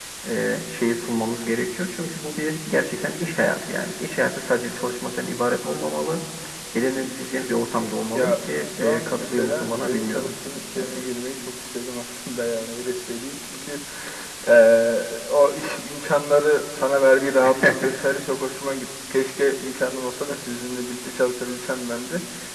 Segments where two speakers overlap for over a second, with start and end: 8.8-10.3

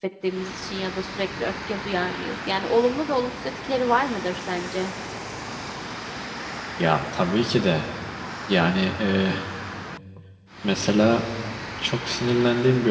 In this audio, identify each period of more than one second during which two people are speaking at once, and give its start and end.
none

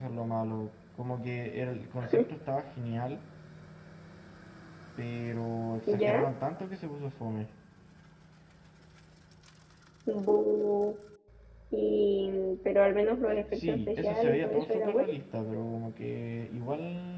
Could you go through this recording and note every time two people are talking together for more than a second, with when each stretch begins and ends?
13.5-15.1

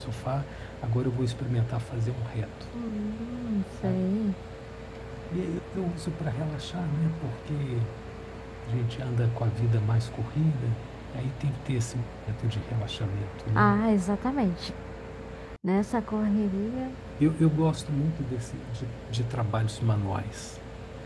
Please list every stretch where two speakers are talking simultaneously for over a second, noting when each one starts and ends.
none

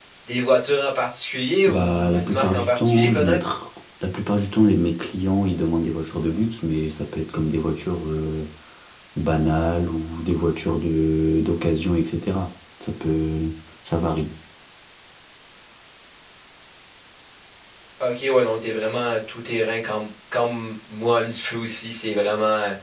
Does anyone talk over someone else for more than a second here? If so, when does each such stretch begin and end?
1.7-3.4

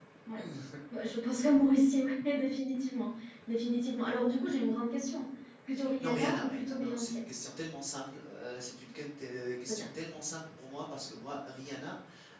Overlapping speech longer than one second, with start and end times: 6.0-7.2

